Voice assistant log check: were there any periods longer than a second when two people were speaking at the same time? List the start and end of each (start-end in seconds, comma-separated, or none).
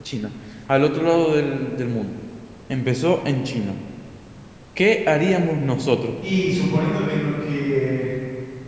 none